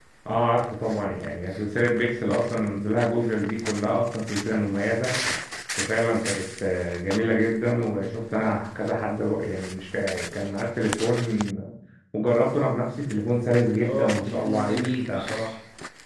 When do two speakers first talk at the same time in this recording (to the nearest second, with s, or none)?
14 s